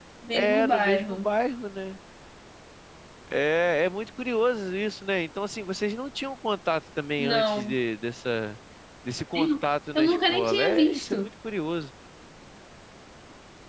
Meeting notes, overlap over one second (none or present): present